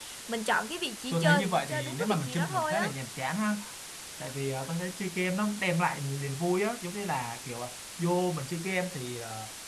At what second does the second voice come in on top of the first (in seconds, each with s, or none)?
1.1 s